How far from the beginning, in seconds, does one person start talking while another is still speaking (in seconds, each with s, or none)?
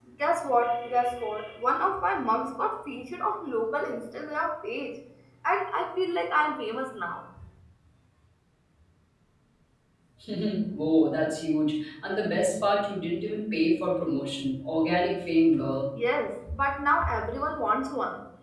none